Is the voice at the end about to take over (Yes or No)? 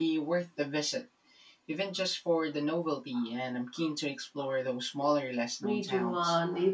Yes